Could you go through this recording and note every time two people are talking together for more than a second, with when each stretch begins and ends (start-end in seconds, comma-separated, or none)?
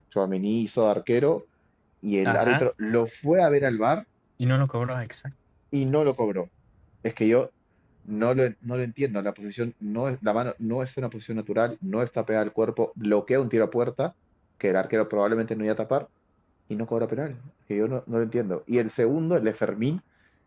none